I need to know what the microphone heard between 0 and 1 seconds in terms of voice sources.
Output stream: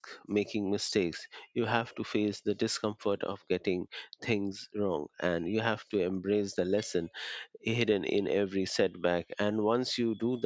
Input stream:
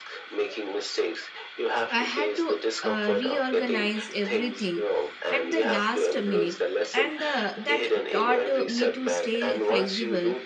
echo only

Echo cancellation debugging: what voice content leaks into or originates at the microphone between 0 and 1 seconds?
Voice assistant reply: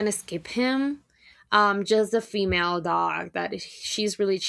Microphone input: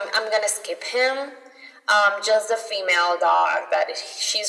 echo only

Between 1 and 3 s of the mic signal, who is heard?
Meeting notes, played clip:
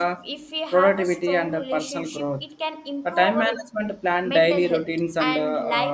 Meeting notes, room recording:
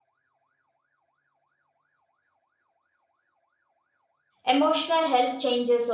neither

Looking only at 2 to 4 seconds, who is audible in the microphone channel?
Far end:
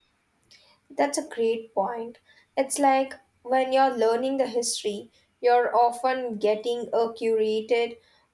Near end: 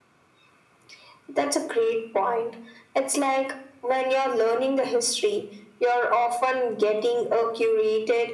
echo only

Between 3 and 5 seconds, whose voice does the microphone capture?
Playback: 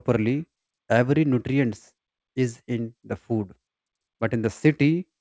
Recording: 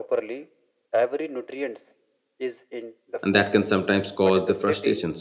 both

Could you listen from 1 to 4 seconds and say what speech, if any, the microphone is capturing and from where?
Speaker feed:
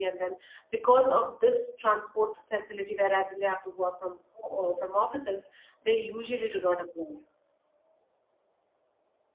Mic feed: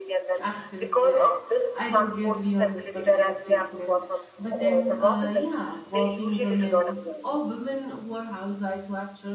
both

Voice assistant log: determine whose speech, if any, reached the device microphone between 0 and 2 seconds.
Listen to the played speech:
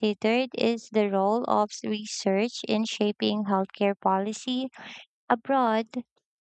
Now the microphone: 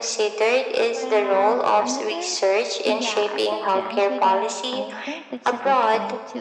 both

